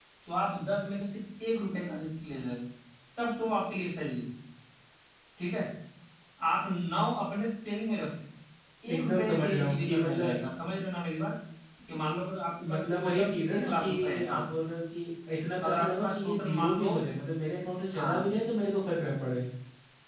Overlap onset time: 9.0 s

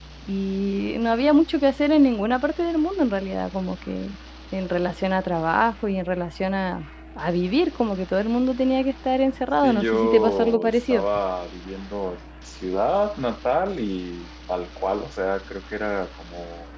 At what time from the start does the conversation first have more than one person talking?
9.6 s

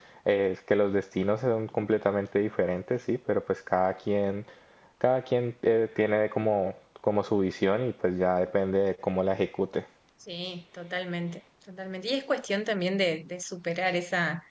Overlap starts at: none

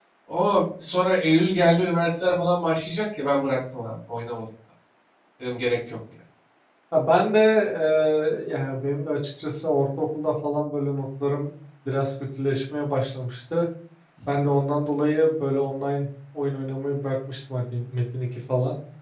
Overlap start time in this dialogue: none

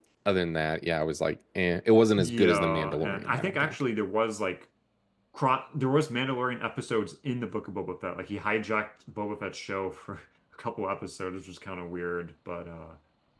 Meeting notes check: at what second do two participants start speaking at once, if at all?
2.2 s

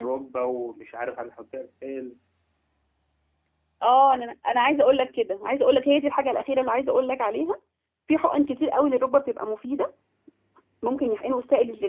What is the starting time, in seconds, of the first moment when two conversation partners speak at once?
none

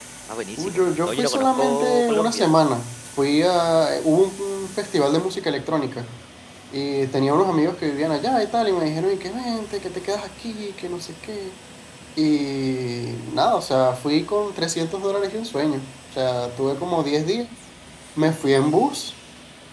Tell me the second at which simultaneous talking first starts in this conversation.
0.6 s

